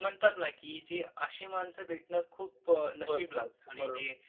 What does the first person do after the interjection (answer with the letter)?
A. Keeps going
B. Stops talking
A